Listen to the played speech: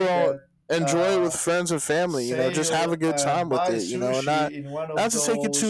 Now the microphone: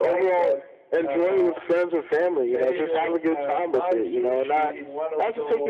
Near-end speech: none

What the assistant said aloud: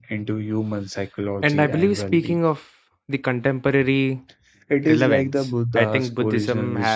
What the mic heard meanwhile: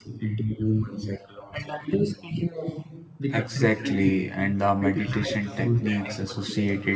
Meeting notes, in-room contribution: present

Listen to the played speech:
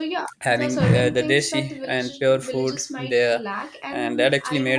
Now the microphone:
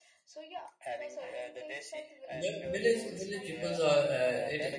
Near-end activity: present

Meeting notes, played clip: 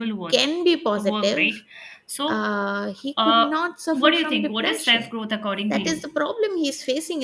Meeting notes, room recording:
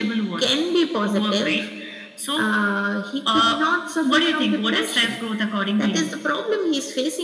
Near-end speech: none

